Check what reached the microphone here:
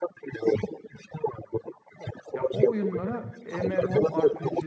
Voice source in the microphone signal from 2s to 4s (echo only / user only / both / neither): both